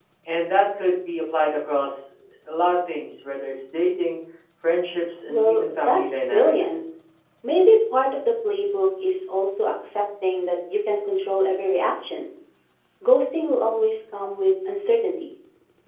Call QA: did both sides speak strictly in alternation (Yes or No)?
No